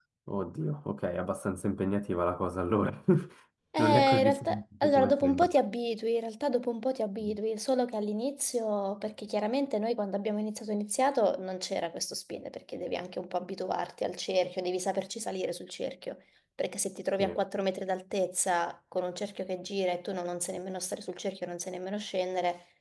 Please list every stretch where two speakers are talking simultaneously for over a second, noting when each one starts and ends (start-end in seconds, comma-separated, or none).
3.8-5.5